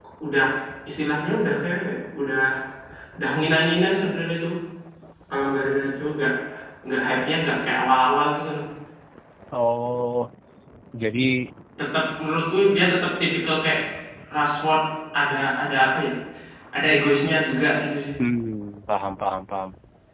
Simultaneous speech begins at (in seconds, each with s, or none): none